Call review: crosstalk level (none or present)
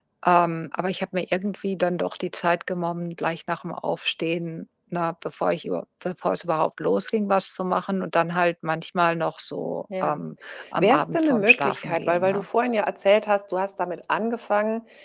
present